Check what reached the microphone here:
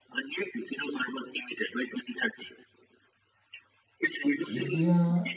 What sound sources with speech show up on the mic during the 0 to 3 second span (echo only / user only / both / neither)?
echo only